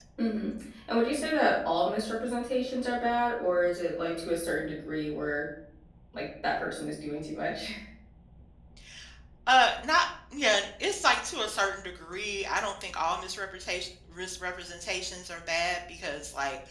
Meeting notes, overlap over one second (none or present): none